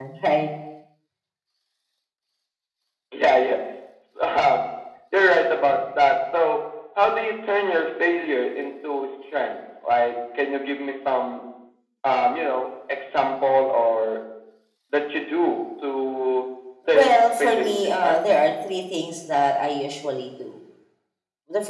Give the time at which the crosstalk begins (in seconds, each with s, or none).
16.9 s